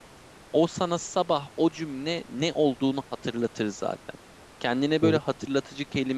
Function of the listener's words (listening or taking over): listening